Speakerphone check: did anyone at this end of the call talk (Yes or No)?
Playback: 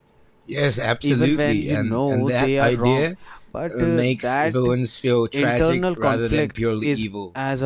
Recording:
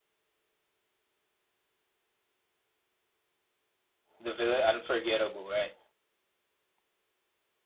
Yes